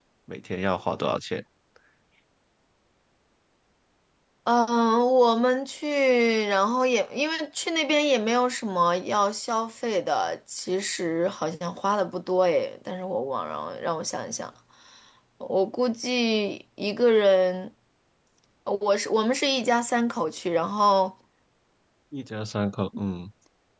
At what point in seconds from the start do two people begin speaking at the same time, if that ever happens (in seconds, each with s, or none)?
none